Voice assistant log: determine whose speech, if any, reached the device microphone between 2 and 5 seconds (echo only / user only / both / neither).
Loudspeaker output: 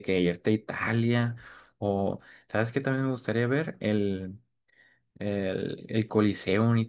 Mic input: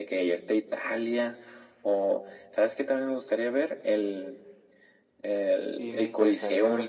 echo only